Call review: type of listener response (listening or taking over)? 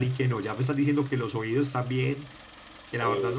listening